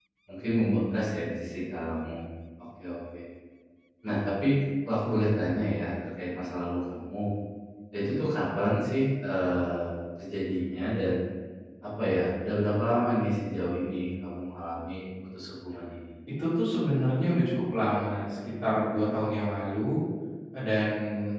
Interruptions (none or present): none